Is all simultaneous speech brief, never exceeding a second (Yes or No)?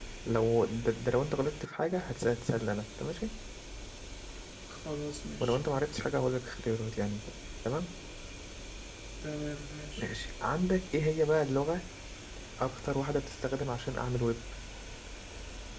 Yes